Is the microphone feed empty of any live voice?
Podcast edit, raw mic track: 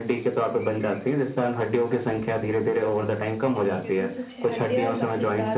No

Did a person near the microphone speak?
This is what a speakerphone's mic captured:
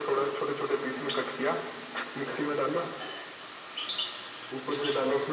No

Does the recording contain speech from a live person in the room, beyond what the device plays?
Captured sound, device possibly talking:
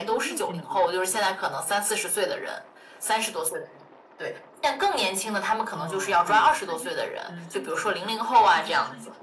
Yes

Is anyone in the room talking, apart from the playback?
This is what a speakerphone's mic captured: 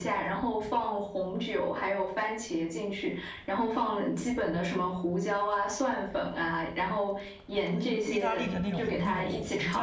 Yes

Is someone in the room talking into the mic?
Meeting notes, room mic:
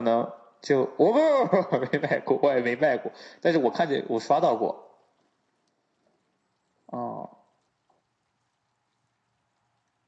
No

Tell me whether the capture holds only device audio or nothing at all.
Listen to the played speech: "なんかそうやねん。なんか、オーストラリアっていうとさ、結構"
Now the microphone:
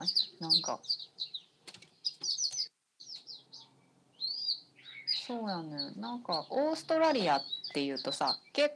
Yes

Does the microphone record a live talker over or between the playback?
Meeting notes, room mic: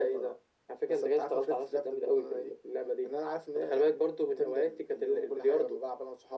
No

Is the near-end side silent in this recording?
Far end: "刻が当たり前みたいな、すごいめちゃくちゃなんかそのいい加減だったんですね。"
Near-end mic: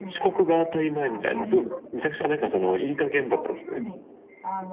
No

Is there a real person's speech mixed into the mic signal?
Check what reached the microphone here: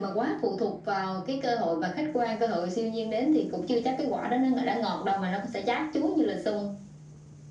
No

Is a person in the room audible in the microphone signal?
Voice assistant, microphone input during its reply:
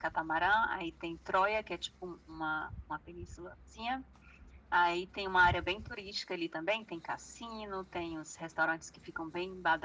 No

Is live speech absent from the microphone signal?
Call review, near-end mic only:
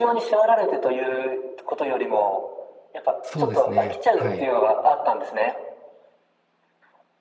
No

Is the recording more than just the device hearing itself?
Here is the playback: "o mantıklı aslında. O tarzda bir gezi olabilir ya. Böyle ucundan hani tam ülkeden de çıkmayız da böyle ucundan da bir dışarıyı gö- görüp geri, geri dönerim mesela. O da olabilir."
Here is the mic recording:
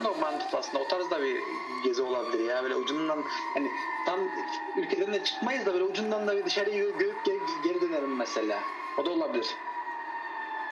No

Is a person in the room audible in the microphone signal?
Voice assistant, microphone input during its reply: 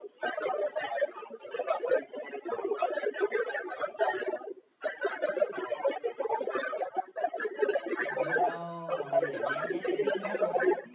Yes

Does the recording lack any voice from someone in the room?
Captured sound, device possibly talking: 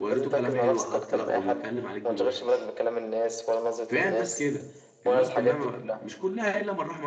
No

